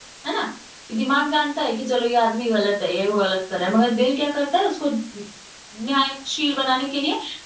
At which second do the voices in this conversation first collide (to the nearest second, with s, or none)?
none